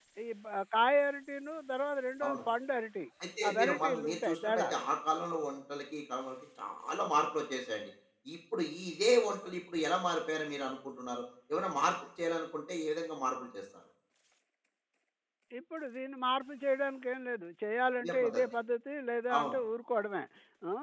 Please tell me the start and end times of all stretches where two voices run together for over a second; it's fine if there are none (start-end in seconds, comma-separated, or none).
3.5-4.7